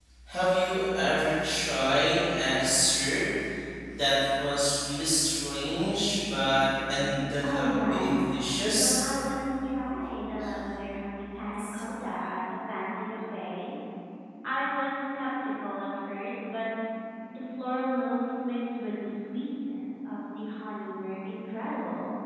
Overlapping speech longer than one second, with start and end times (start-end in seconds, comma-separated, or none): 7.4-9.0